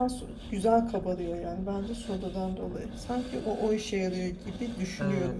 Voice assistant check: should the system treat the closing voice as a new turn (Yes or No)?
Yes